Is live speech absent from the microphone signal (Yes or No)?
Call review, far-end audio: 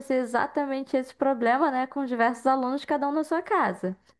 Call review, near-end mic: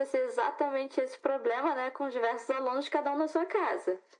Yes